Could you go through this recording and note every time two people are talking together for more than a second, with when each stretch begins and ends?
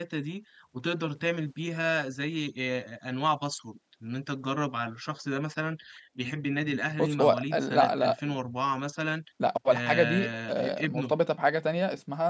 7.0-8.3, 9.7-11.1

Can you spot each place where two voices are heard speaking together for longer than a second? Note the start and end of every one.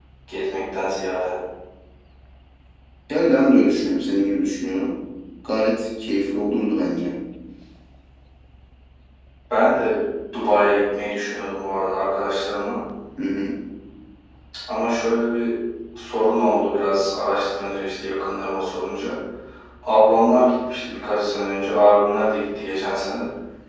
none

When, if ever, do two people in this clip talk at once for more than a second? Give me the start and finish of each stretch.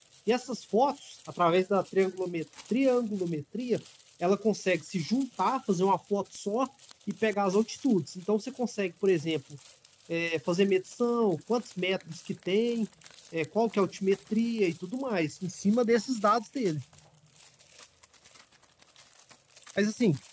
none

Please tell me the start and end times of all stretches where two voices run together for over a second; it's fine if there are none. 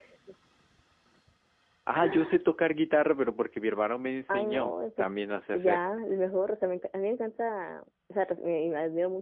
4.3-5.8

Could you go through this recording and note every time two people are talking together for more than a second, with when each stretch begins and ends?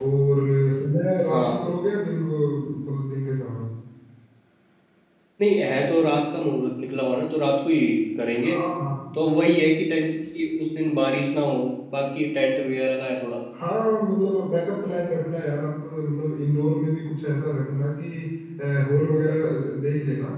none

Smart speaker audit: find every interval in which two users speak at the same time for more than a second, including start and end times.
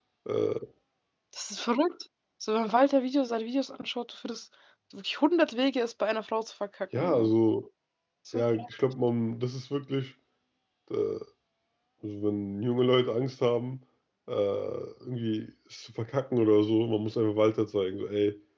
none

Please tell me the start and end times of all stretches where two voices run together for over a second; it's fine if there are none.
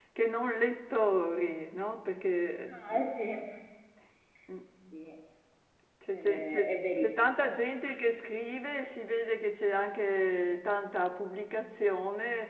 6.1-7.6

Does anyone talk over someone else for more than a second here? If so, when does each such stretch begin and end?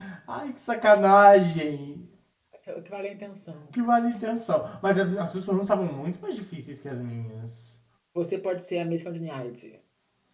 none

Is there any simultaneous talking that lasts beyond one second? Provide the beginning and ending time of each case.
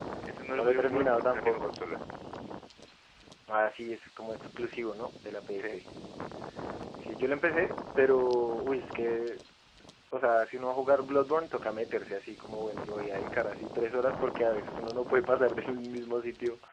0.5-1.8

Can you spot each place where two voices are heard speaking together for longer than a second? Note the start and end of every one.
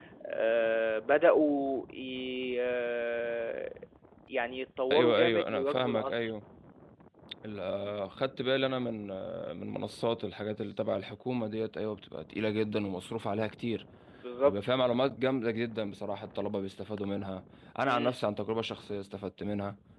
4.9-6.2

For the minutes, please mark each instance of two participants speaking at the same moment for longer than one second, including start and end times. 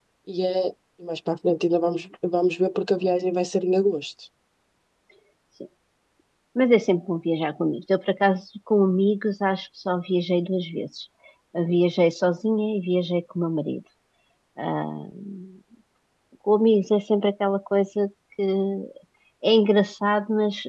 none

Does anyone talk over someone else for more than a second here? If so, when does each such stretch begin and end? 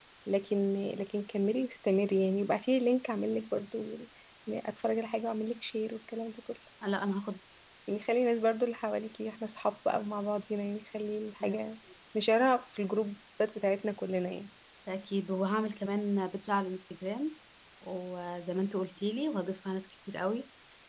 none

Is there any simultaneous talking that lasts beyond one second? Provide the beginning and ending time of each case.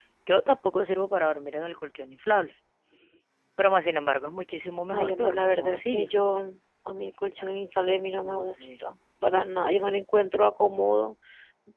4.9-6.1

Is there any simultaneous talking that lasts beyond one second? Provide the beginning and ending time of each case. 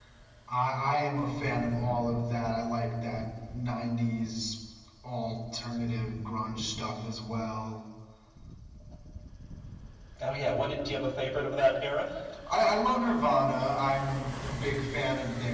none

